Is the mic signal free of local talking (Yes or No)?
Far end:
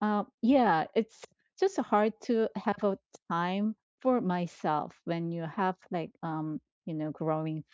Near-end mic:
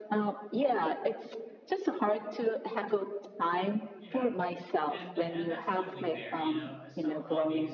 No